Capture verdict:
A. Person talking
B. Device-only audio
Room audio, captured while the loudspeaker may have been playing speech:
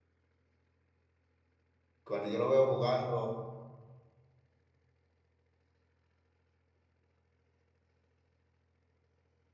A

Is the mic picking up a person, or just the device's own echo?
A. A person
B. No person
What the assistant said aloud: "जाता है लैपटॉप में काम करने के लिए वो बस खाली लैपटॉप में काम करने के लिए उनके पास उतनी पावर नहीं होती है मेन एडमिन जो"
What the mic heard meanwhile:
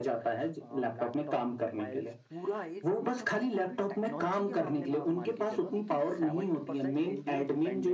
A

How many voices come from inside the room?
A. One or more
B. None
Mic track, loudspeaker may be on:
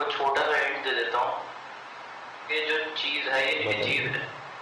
A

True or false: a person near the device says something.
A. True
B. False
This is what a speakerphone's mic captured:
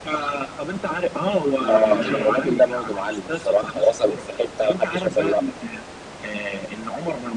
A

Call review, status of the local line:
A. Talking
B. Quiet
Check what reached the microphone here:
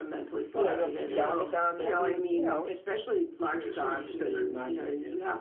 A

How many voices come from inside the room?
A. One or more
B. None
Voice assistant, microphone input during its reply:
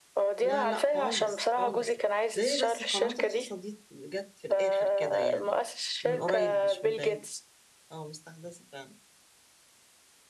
A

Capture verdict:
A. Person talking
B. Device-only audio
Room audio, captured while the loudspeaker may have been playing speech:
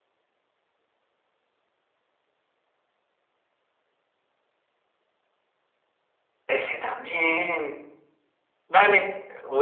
A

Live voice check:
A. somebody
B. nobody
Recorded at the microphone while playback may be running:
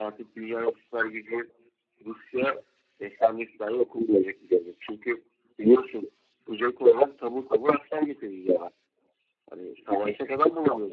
B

